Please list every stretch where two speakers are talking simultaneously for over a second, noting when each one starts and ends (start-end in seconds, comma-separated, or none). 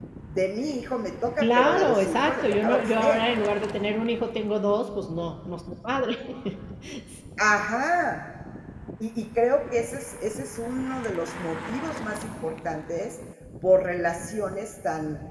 1.4-3.2